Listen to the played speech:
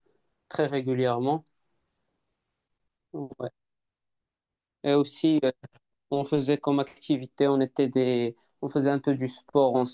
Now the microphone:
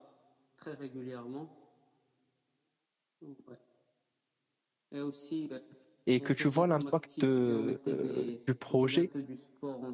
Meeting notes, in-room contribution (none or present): present